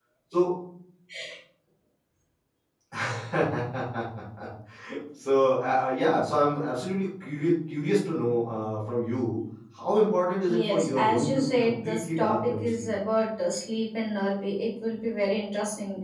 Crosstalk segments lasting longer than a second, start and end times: 10.5-12.9

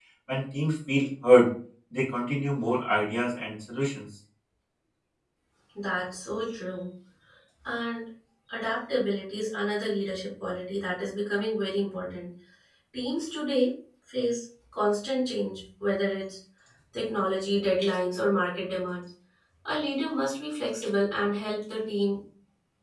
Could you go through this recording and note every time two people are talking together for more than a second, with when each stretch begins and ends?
none

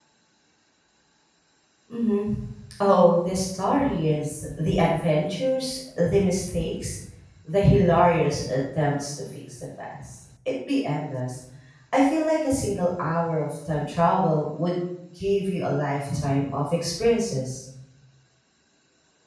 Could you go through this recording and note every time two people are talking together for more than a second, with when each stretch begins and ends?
none

